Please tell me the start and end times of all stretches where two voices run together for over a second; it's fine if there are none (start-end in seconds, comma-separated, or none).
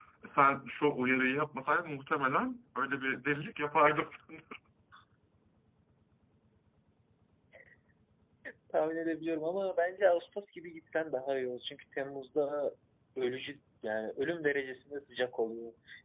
none